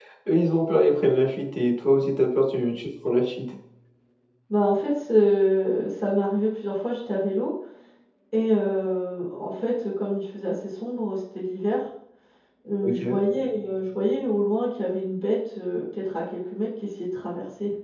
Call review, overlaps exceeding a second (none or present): none